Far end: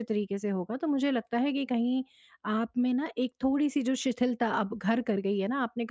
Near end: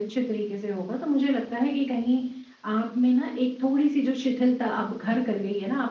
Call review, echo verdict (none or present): present